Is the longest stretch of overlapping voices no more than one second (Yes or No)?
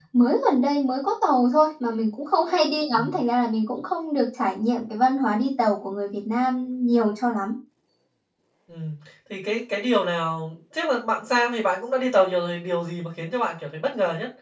Yes